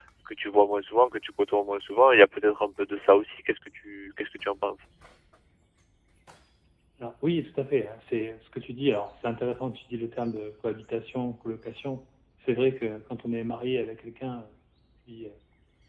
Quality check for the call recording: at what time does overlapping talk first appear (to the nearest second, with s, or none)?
none